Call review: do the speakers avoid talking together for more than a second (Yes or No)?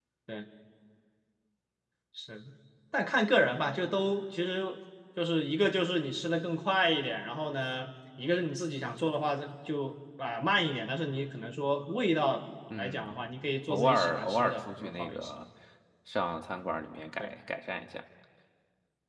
No